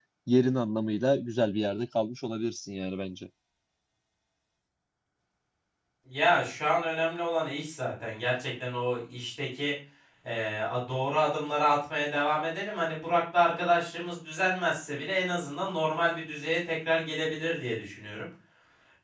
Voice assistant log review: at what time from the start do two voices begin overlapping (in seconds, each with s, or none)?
none